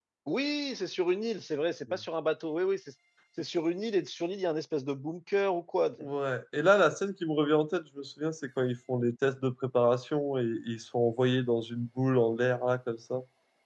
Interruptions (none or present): none